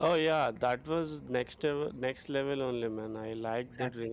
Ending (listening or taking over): taking over